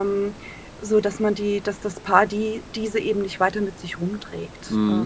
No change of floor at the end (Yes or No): No